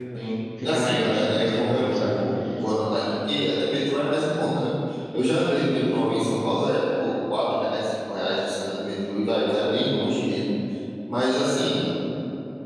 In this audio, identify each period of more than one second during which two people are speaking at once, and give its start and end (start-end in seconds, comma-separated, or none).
0.6-2.2